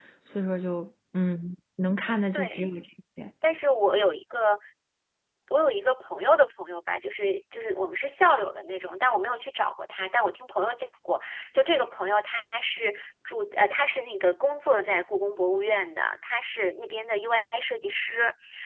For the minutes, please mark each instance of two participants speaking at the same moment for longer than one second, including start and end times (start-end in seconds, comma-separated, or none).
none